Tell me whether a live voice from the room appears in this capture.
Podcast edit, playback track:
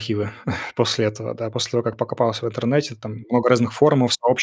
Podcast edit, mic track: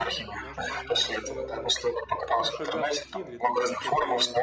Yes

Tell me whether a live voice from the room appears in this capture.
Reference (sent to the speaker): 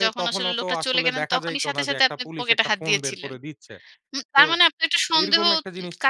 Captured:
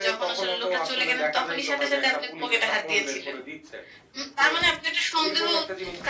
No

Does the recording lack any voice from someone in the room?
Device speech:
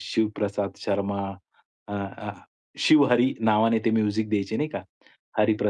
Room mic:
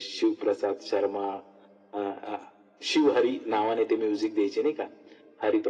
Yes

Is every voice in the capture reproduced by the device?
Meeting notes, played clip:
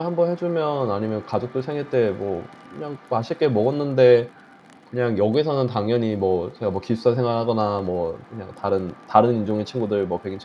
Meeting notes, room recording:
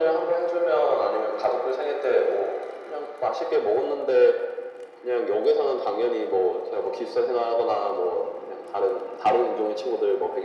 Yes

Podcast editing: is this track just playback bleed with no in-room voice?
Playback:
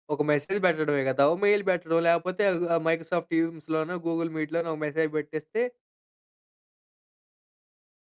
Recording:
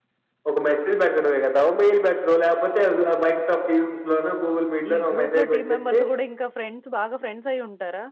No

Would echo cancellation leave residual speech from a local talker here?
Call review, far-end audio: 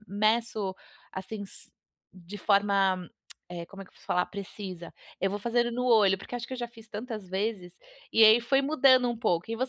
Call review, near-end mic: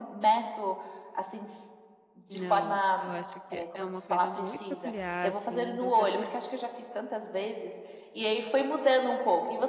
Yes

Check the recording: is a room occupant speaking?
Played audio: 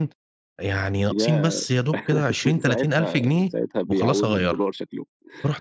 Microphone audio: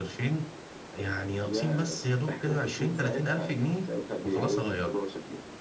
No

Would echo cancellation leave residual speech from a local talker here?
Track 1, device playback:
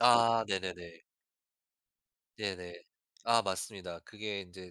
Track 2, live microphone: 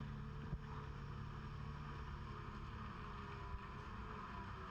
No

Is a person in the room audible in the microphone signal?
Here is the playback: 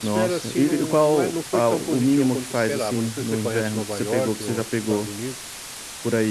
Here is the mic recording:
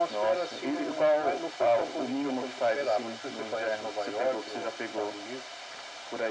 No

